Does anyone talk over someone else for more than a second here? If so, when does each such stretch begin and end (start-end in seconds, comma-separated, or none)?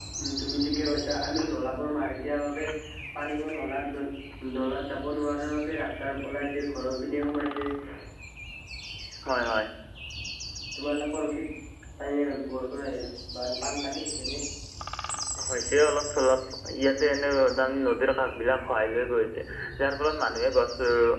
none